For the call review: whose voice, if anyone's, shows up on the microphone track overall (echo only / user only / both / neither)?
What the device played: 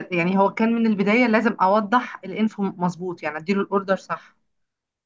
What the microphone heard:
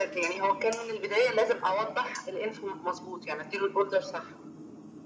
echo only